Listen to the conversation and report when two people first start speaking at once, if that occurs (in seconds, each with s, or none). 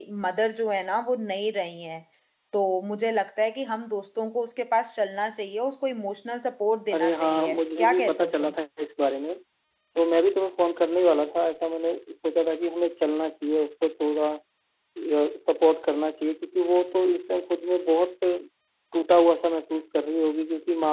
6.9 s